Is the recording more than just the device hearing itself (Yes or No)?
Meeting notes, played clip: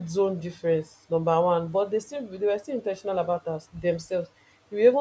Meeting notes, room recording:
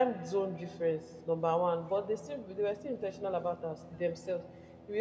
No